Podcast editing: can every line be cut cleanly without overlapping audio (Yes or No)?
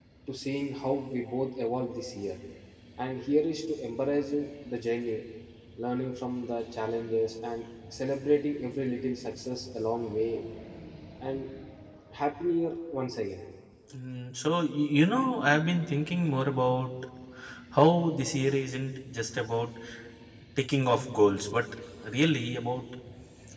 Yes